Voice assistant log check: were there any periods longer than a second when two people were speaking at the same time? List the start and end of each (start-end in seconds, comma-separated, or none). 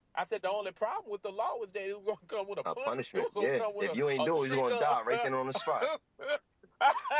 2.7-5.3